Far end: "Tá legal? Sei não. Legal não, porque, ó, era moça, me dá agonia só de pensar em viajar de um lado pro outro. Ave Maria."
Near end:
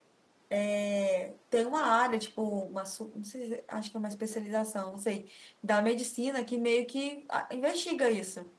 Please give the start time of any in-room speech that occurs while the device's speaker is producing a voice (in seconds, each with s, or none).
0.5 s